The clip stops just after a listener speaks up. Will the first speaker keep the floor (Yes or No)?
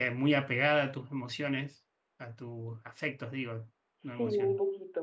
No